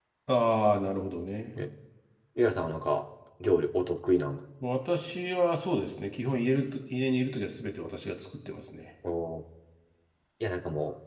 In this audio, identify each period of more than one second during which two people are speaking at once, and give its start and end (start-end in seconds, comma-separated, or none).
none